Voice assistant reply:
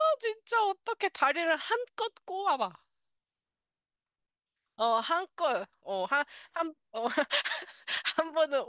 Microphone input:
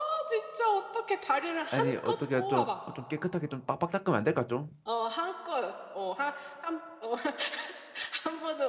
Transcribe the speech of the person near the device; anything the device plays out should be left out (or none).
아니, 어떻게 좀, 어, 좀 깨끗하게 좀 빡빡 닦으면 안 될까, 좀?